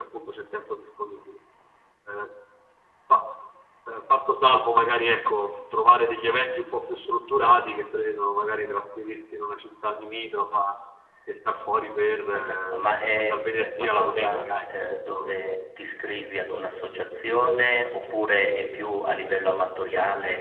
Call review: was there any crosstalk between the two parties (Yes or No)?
Yes